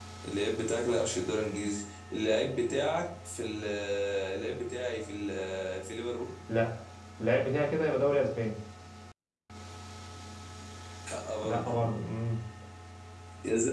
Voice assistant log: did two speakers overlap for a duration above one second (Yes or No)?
No